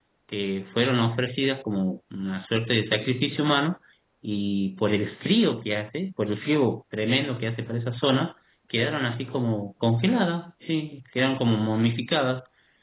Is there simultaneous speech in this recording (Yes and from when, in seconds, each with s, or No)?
No